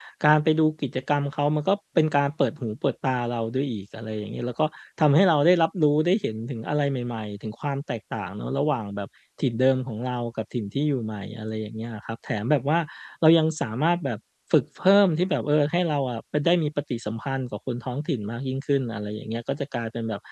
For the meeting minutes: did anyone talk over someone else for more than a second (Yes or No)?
No